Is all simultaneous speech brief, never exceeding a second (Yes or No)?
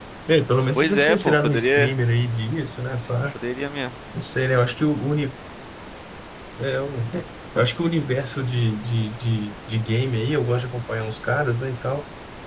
No